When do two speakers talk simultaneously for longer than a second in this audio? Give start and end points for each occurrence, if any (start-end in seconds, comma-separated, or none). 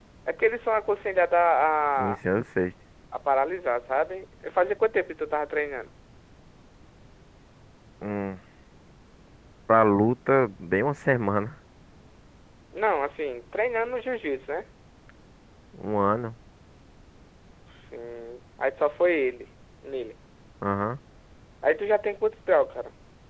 none